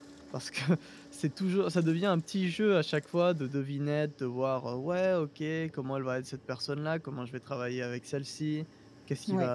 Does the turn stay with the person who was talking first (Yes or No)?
Yes